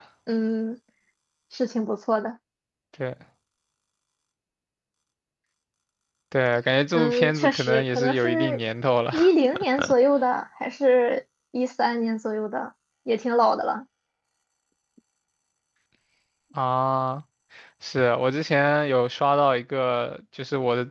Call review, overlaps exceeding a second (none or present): present